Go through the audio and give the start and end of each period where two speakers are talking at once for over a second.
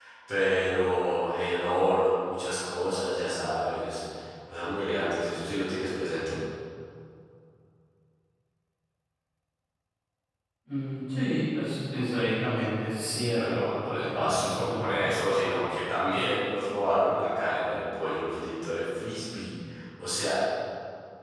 13.2-15.2

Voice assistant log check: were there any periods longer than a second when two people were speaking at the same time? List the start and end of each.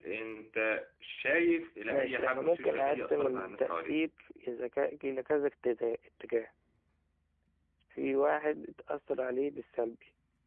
1.9-4.0

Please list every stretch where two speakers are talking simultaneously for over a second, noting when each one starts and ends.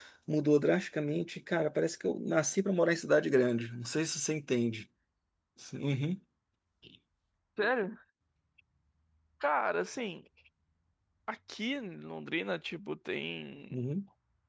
none

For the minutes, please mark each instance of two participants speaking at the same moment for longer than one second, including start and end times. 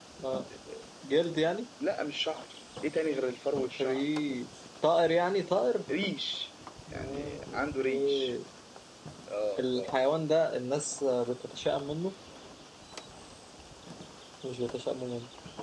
6.9-8.3

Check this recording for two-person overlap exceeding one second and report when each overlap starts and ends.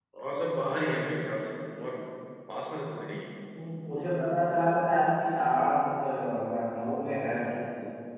none

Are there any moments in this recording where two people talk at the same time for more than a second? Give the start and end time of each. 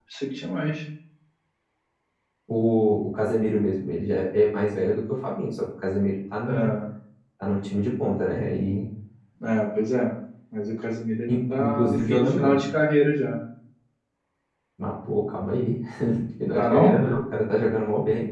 11.3-12.6

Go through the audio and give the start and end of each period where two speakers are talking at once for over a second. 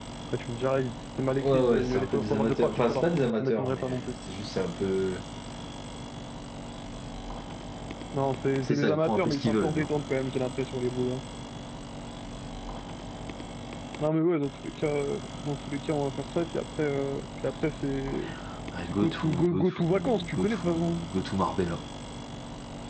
1.4-4.1, 8.6-9.8, 18.9-21.0

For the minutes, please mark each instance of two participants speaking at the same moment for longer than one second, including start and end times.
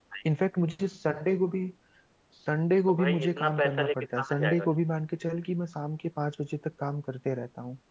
2.9-4.7

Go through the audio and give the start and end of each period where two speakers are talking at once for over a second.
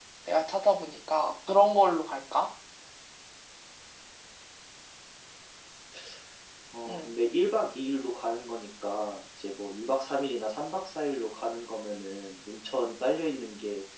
none

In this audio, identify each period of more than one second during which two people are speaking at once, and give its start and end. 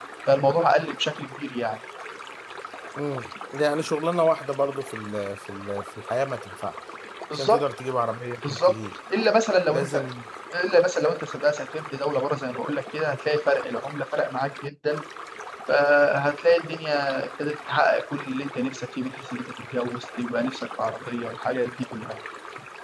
none

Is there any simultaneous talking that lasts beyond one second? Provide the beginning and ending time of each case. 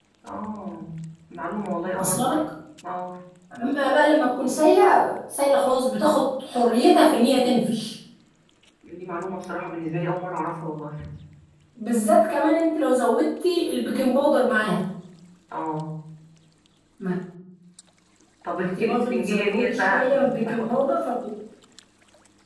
18.6-20.7

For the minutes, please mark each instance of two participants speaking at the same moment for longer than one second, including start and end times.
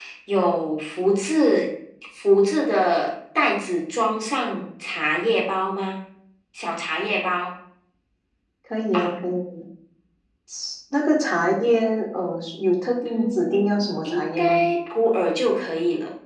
13.0-14.6

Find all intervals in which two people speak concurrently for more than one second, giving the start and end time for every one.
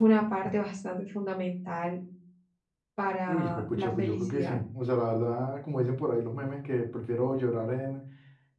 3.3-4.6

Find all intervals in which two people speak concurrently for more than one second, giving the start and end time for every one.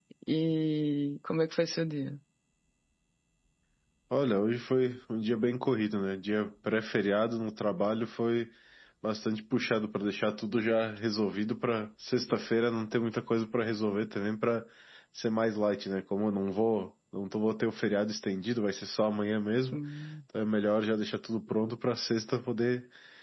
none

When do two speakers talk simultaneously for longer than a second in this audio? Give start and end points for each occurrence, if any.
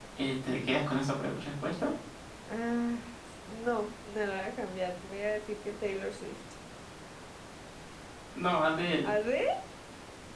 none

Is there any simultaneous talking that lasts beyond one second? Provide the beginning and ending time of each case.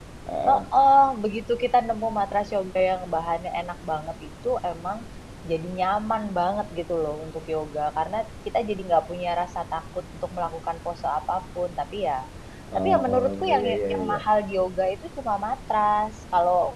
12.8-14.2

